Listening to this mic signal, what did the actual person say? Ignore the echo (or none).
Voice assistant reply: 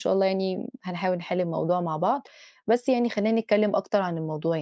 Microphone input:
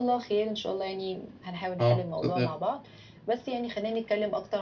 آه، اتفضلي.